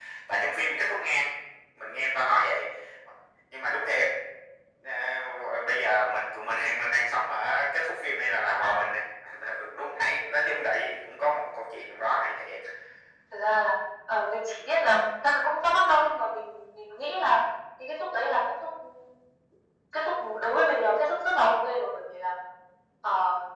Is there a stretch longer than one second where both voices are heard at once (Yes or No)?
No